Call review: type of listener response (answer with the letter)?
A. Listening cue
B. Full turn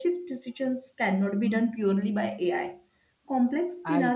A